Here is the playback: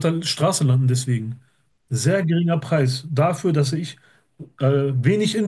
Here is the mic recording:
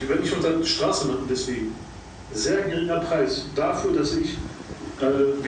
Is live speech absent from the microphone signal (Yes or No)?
Yes